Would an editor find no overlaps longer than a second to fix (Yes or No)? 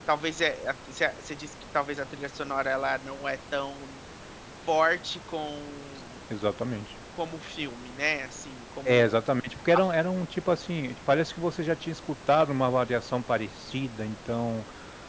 Yes